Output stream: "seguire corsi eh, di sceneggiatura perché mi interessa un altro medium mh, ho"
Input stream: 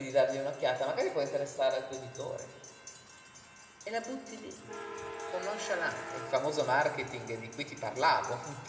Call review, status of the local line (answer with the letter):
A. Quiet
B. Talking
B